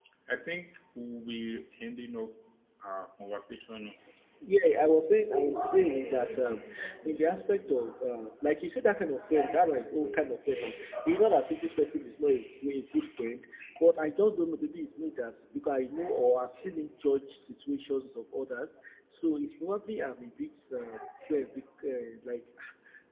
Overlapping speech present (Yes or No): No